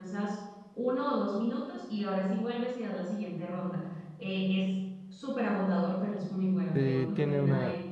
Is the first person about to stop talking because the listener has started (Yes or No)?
Yes